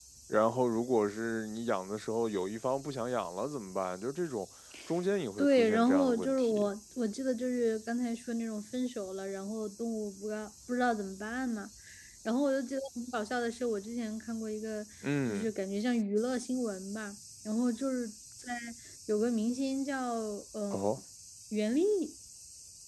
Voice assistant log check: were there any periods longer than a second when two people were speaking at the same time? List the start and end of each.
5.4-6.7

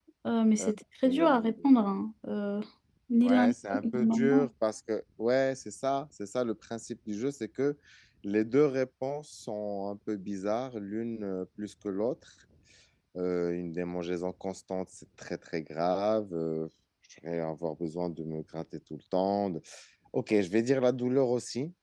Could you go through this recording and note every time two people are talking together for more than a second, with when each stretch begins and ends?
3.2-4.5

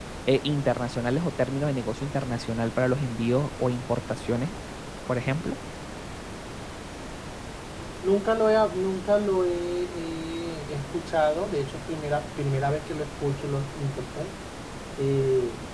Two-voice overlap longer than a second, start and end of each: none

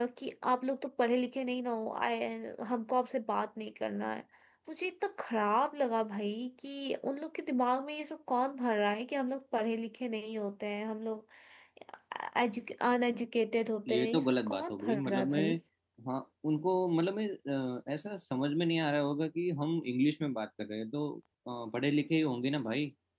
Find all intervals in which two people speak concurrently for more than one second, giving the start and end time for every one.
13.9-15.5

